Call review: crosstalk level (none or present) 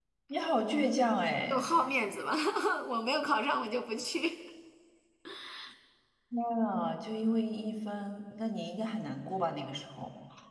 none